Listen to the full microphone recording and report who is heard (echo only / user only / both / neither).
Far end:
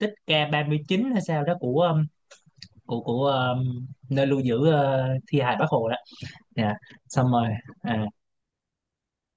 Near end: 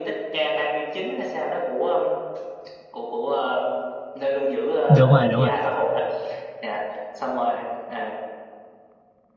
both